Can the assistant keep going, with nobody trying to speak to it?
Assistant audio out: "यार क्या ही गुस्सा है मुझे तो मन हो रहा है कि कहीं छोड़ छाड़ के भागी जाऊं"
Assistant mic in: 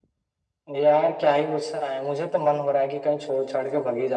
Yes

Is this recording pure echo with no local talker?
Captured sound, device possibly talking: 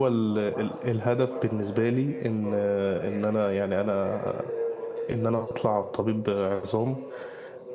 No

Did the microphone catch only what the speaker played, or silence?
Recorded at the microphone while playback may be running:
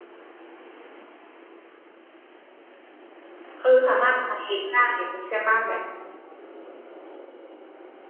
No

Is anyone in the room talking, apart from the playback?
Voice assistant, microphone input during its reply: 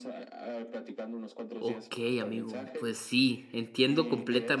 Yes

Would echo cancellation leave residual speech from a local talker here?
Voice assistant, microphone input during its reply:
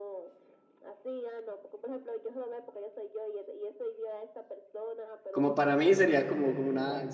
Yes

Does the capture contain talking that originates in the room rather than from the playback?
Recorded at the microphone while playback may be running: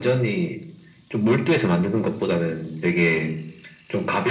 No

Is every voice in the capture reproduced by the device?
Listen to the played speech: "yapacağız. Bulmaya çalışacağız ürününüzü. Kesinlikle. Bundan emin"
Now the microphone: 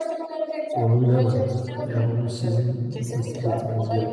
No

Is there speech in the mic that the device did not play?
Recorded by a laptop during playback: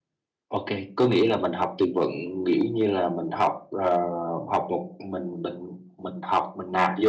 Yes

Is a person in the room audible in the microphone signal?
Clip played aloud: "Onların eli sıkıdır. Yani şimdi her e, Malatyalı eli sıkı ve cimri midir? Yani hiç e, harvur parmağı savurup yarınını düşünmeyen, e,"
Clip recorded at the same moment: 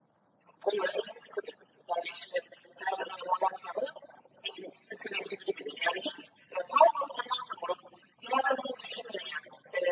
No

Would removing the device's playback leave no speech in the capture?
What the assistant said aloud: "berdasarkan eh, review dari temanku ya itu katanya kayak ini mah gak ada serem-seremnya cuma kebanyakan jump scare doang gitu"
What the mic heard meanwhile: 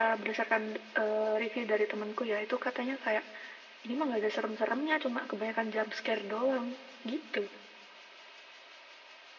Yes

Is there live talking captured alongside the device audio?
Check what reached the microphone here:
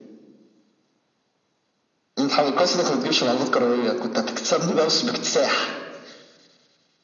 No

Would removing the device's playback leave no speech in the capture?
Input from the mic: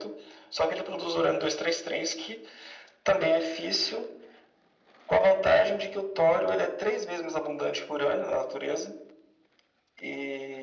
Yes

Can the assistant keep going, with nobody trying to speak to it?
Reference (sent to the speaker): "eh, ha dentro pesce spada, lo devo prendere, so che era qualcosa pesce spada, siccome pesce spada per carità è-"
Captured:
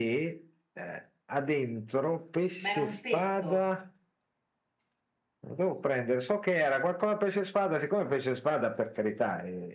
No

